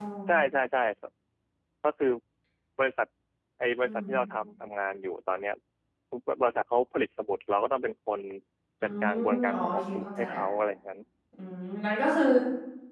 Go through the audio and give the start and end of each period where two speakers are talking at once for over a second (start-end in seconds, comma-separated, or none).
9.0-10.4